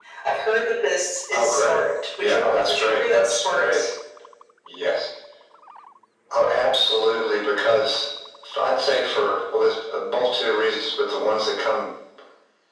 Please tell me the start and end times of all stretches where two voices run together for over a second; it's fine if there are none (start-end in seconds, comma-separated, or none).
2.2-3.8